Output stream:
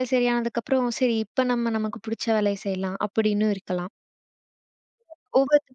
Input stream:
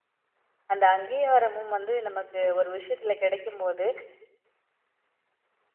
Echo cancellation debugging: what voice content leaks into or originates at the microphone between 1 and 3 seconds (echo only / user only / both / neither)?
user only